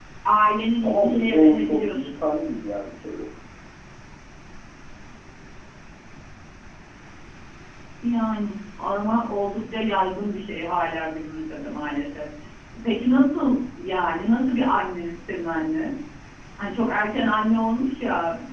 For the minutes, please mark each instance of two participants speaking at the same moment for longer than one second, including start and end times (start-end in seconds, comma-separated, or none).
0.8-2.1